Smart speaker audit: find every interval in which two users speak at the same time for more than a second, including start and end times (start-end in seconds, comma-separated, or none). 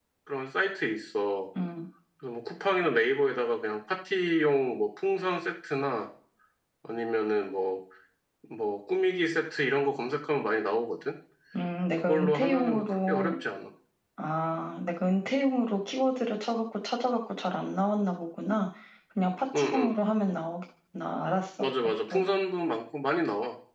12.1-13.3